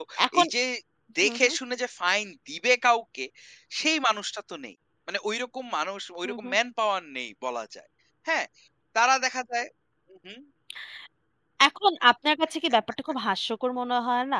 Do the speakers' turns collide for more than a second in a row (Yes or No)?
No